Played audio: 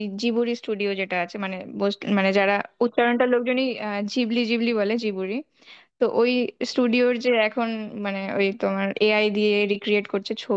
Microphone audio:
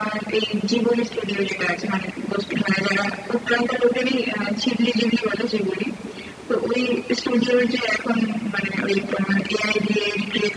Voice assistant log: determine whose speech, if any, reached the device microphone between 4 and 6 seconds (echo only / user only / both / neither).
echo only